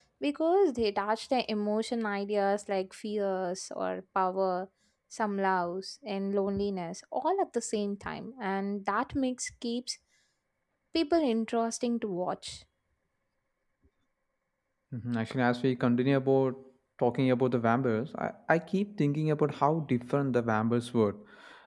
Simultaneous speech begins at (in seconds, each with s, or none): none